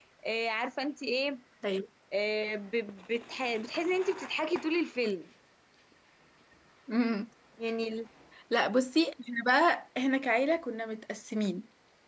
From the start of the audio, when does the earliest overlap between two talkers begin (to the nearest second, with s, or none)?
none